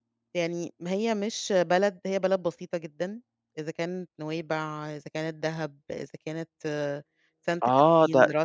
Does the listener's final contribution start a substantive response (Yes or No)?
Yes